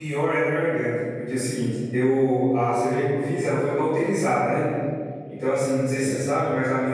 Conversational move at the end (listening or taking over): listening